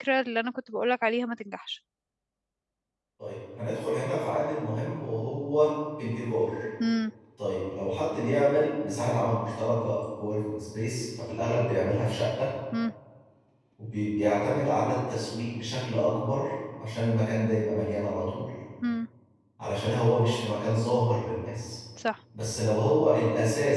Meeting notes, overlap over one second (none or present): none